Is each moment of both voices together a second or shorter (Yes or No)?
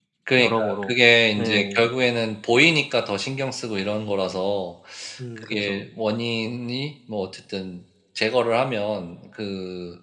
Yes